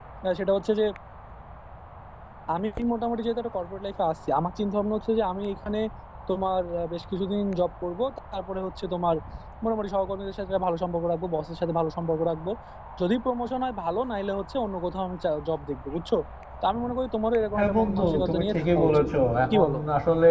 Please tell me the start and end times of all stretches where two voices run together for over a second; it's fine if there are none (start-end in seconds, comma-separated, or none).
17.6-19.0